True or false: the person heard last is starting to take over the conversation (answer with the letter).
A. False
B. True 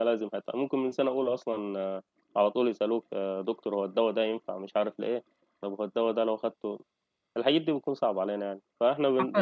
A